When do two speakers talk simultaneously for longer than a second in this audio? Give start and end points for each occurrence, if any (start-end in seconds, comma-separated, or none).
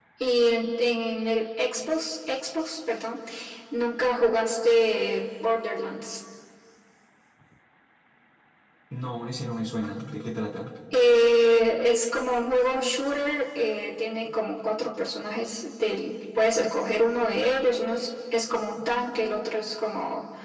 none